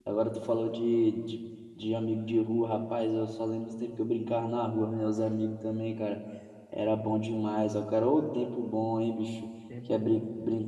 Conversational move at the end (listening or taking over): listening